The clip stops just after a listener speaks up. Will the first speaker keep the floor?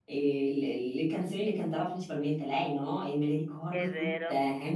Yes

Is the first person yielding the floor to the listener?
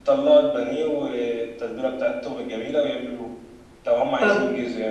No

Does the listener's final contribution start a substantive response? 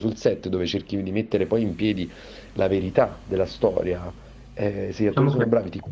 No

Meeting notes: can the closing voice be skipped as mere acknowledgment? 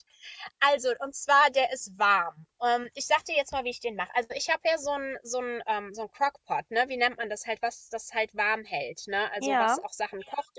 Yes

